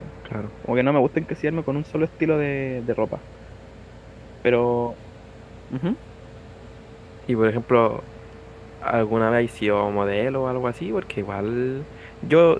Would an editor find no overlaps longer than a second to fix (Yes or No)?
Yes